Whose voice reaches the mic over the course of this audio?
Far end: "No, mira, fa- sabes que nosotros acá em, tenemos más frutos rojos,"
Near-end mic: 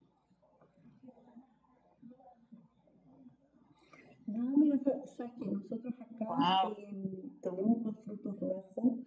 both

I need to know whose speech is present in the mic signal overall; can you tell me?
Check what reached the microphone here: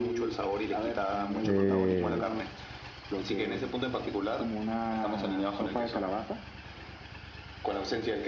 both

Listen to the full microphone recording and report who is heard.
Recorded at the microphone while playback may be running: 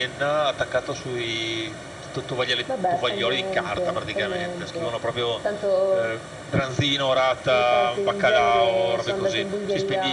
echo only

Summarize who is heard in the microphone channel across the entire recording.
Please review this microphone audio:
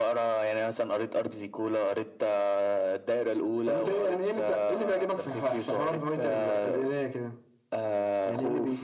echo only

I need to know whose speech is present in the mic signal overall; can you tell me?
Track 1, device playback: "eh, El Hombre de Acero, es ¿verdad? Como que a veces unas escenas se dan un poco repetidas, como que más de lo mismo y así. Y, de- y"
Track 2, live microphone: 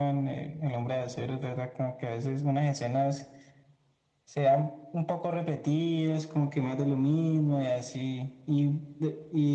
echo only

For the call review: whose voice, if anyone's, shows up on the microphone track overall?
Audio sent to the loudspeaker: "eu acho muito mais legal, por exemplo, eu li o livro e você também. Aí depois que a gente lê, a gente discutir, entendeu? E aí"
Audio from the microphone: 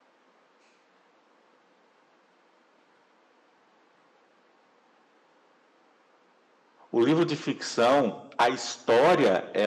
user only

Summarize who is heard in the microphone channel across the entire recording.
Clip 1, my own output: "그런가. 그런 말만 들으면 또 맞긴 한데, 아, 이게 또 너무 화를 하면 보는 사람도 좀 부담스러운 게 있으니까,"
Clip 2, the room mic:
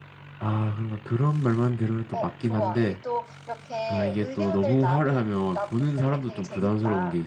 both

